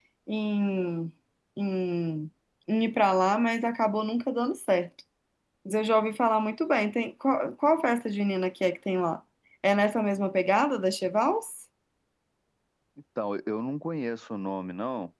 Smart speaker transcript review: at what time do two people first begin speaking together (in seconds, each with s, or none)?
none